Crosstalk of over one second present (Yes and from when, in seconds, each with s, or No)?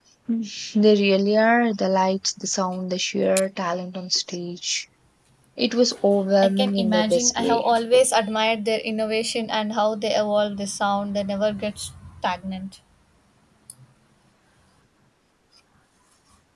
Yes, from 6.4 s